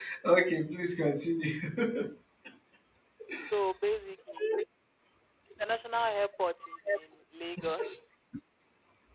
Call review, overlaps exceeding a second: none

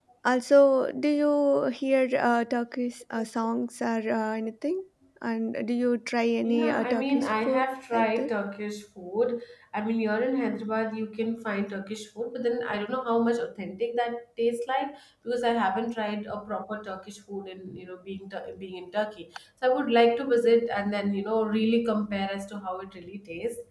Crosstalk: present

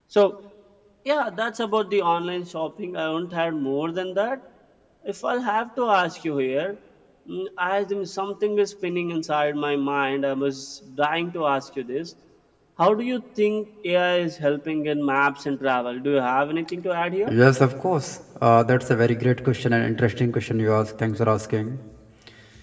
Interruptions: none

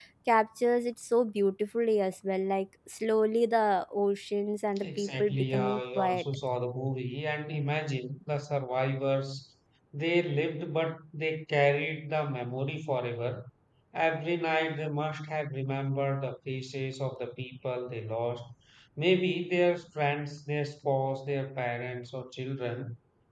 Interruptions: present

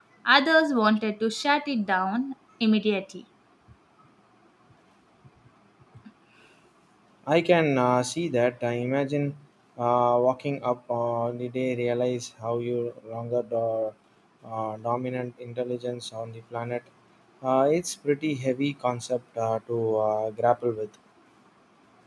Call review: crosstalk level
none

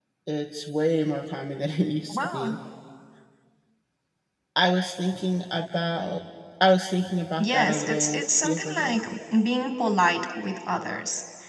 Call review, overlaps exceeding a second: present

